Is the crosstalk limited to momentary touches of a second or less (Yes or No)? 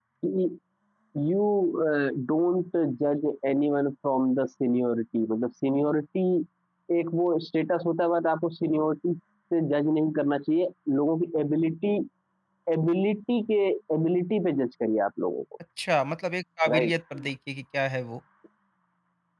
Yes